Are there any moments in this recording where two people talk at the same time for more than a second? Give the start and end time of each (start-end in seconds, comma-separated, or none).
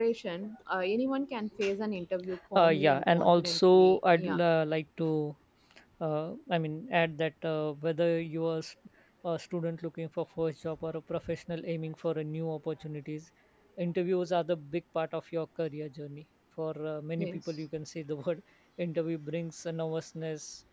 2.6-4.4